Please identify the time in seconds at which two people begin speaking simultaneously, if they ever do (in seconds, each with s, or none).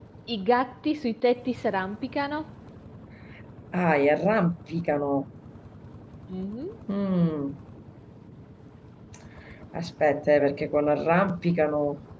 none